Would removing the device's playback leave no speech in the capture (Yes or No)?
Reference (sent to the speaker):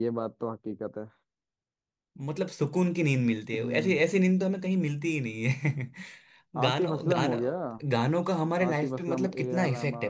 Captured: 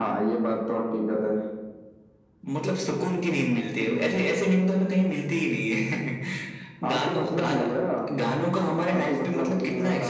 Yes